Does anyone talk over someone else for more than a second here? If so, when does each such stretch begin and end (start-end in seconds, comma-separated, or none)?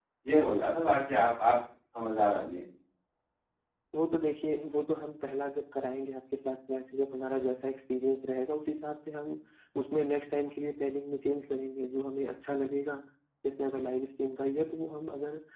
none